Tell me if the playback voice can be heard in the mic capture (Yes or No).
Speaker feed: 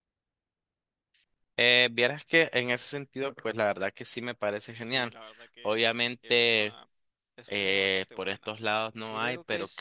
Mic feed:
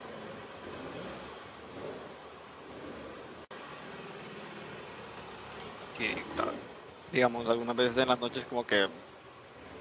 No